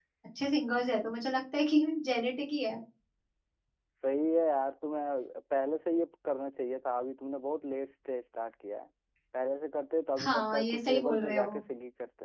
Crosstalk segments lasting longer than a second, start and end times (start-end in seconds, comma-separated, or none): 10.2-11.6